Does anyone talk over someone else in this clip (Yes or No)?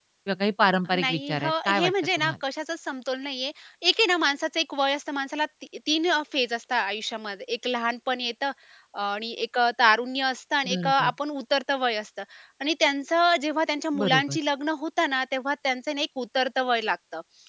Yes